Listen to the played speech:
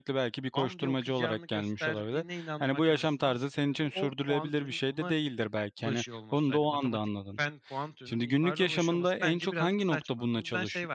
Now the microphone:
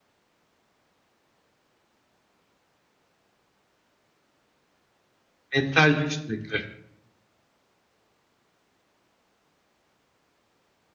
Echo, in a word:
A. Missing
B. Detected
A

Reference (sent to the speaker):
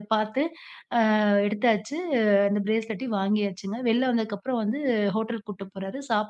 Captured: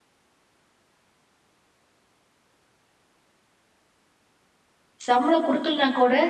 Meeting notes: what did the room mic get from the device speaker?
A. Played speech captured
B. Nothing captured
B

